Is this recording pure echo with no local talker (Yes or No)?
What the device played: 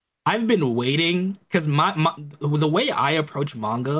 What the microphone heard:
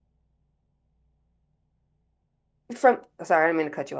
No